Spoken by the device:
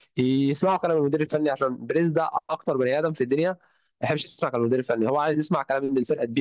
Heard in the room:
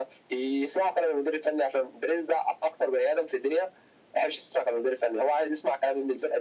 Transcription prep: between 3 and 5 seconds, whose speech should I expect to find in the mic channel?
echo only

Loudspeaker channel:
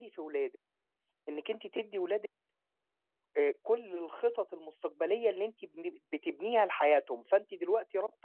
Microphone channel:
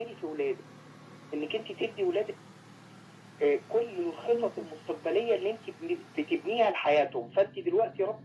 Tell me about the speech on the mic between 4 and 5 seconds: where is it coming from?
both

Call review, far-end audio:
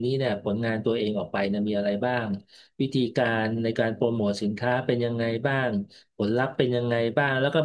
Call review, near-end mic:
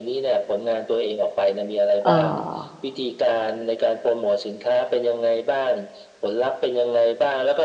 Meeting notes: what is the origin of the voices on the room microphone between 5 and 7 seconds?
echo only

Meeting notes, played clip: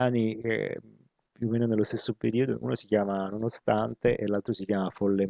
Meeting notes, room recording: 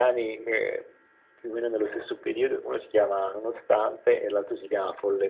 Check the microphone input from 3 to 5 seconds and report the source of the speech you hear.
echo only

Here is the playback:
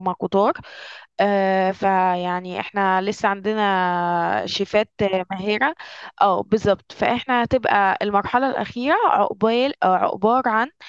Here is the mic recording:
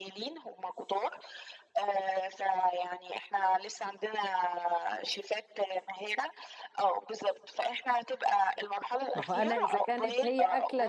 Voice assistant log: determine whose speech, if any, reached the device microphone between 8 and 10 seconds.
both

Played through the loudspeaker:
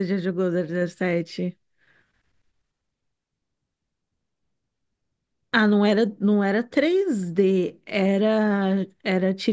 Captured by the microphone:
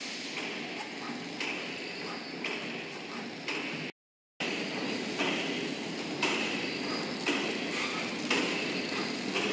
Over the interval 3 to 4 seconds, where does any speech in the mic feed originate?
neither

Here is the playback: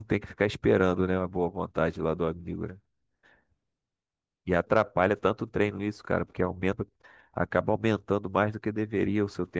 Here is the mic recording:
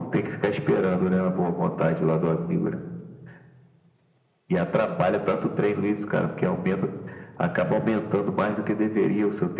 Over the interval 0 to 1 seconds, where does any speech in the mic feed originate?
echo only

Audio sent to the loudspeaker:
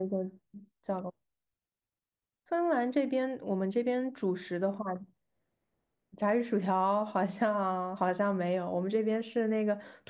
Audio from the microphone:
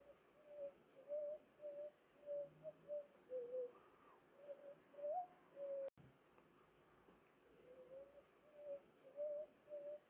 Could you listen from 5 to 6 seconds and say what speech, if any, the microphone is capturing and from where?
neither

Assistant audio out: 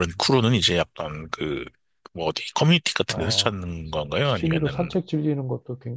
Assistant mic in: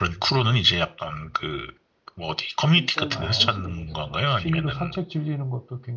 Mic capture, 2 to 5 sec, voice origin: both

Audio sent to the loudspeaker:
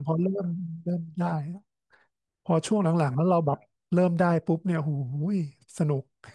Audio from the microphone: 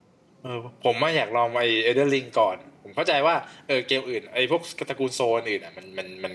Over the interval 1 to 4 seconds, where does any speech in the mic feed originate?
user only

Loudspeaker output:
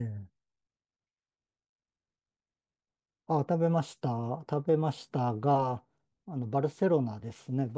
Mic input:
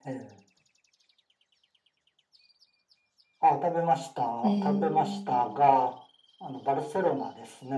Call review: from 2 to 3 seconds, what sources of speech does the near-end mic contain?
neither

